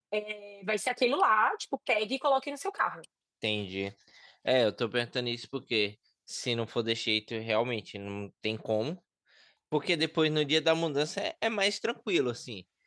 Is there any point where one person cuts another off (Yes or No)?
No